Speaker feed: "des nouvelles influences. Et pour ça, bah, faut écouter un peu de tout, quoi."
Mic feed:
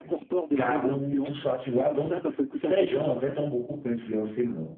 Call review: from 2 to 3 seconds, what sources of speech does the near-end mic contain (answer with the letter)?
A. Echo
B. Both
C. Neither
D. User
B